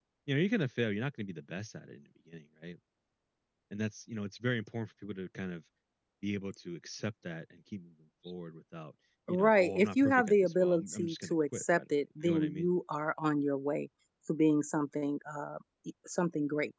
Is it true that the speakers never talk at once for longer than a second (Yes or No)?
No